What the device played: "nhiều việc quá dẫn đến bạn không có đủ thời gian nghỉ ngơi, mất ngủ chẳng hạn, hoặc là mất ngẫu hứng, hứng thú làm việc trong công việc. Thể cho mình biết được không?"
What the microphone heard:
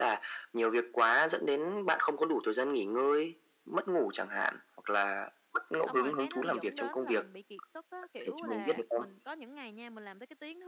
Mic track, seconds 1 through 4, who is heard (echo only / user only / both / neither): echo only